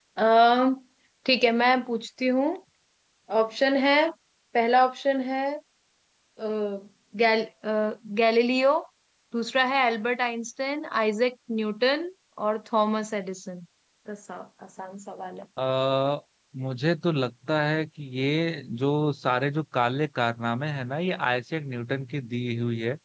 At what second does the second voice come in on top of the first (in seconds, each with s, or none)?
none